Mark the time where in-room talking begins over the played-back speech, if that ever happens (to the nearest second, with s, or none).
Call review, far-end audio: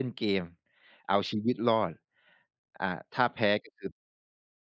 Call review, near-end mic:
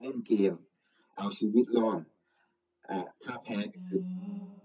4 s